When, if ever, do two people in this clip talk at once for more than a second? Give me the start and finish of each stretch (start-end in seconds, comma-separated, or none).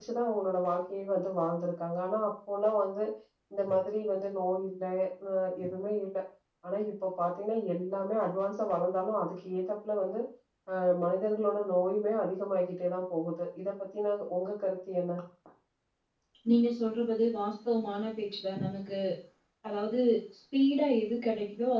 none